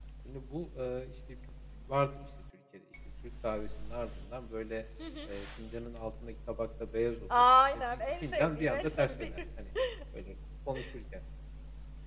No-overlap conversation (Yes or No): No